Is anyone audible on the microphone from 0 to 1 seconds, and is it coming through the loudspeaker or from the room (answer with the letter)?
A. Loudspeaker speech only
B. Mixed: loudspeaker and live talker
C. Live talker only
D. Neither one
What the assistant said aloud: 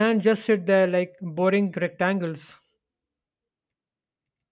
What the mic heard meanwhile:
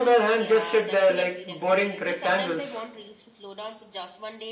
B